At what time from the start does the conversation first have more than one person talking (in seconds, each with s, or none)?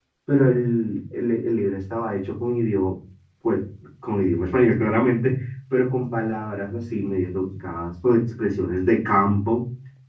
none